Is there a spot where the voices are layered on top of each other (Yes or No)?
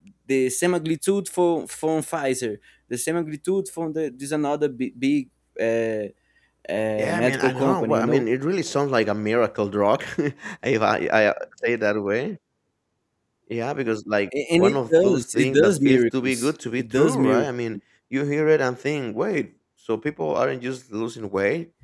Yes